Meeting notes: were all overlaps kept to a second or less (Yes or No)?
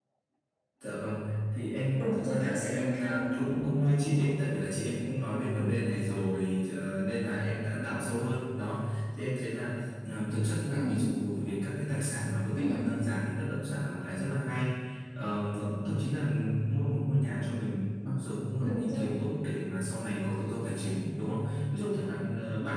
No